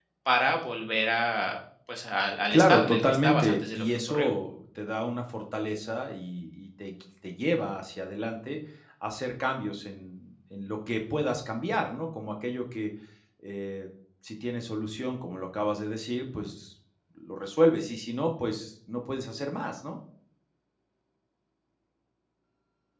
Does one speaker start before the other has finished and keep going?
Yes, from 2.5 s

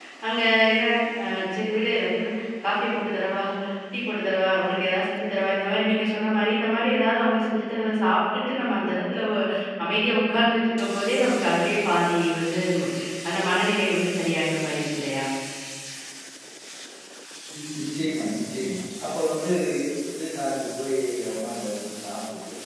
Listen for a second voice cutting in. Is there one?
No

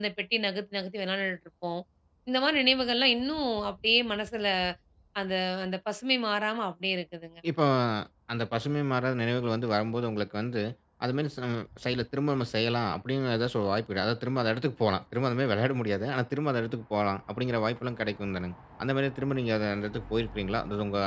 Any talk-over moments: No

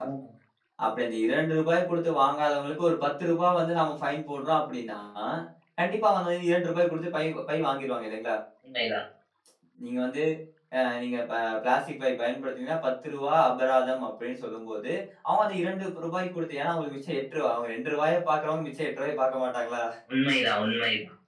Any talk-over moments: No

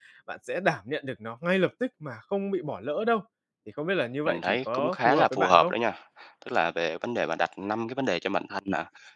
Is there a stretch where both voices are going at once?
Yes, from 4.3 s

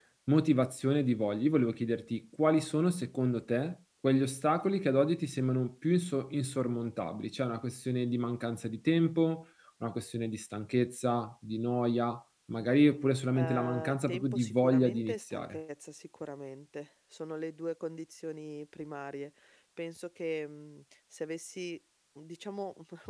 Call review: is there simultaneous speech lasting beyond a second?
Yes, from 13.3 s

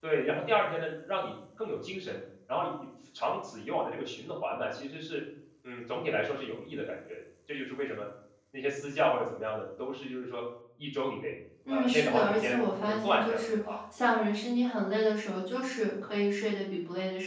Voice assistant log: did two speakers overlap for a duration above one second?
Yes, from 11.7 s

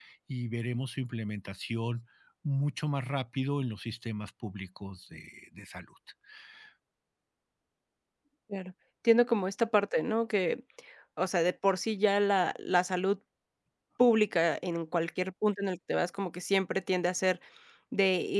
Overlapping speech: No

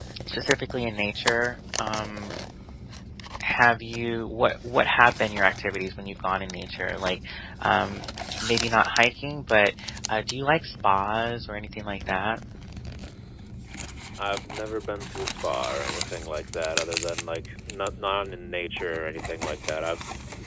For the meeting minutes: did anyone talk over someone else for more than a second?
No

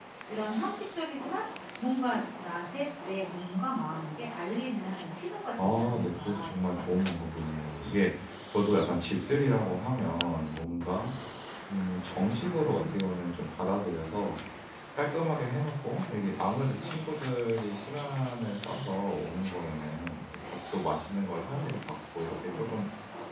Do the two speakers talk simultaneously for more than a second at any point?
Yes, from 5.6 s

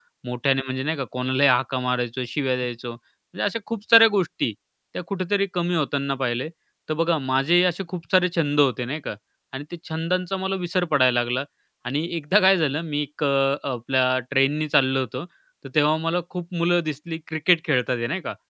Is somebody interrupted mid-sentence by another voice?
No

